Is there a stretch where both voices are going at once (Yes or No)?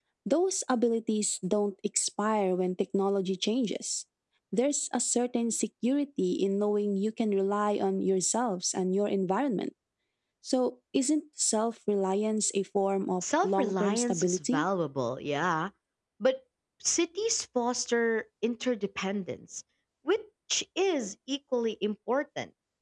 Yes